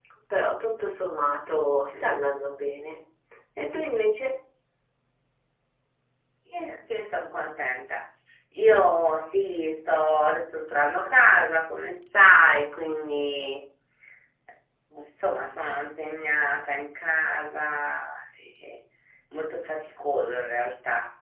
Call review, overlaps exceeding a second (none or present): none